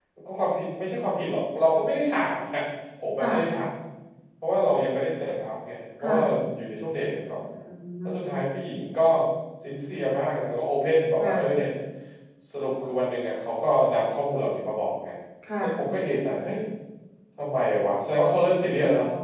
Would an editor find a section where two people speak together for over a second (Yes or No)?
No